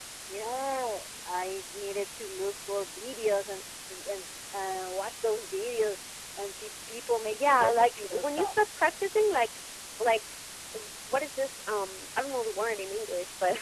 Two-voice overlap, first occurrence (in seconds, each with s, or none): 7.3 s